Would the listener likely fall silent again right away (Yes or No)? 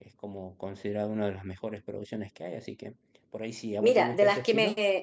No